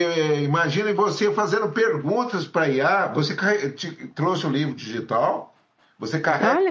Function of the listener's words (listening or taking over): listening